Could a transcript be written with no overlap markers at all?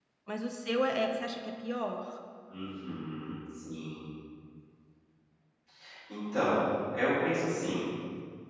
Yes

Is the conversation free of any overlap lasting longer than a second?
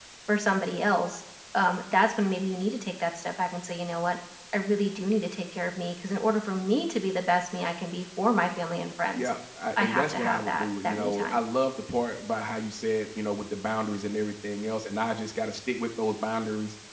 No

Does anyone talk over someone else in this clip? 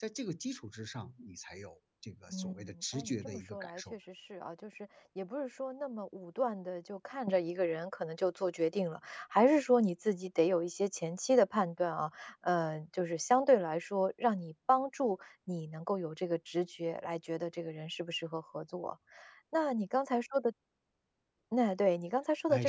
Yes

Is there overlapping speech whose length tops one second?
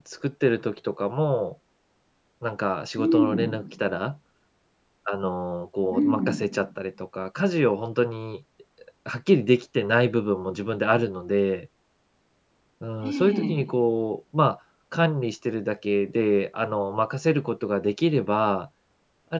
No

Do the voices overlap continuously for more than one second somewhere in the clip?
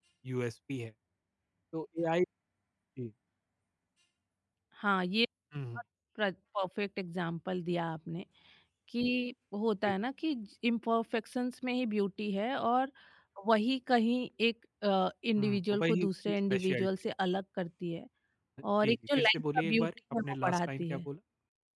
Yes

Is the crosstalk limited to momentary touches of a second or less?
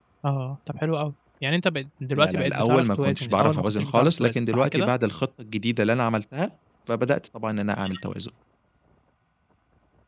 No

